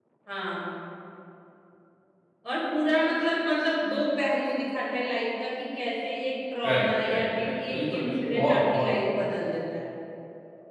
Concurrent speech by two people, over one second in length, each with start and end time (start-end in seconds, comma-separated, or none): 6.7-8.9